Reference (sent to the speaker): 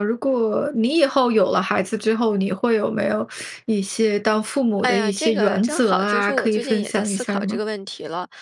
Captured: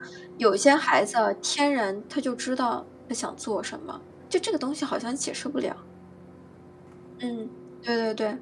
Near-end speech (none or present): present